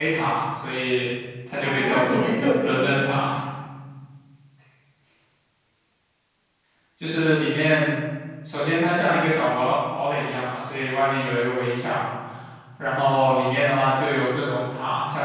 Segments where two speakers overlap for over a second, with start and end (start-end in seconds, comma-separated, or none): 1.6-3.1